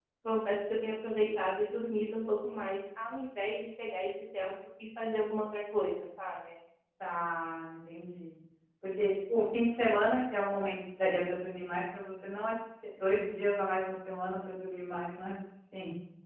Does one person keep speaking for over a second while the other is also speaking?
No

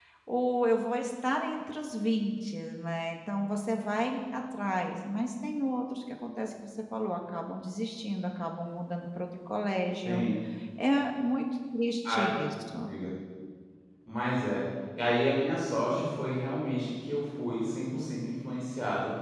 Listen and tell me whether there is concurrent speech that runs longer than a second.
No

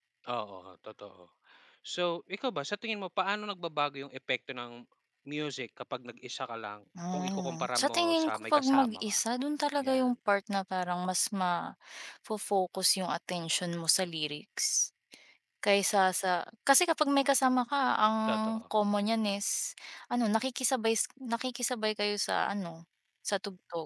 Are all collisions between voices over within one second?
No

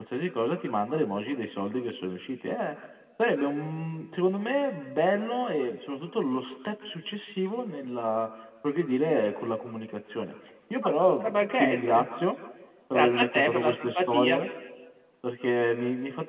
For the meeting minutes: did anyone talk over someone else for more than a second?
Yes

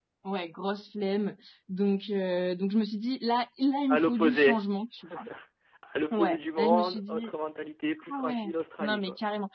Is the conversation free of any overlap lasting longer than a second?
No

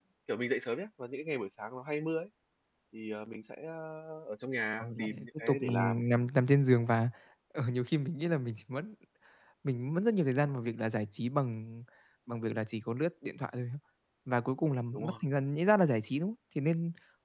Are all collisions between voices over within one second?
No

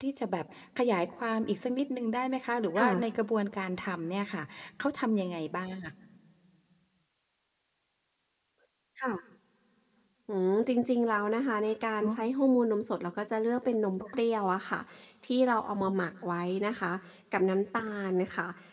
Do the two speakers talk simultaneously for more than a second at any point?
No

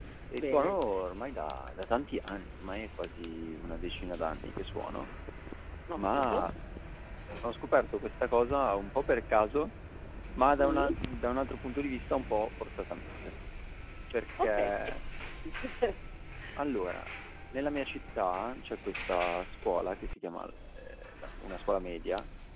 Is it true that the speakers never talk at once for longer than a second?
Yes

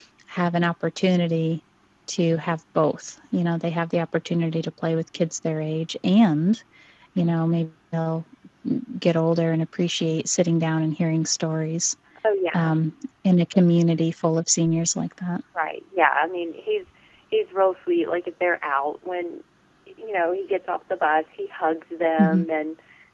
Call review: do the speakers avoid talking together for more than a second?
Yes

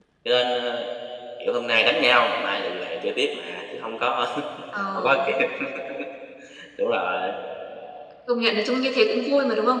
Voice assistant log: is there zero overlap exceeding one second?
Yes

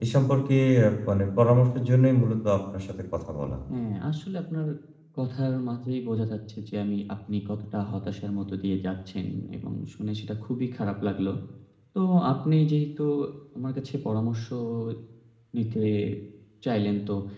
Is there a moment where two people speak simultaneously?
No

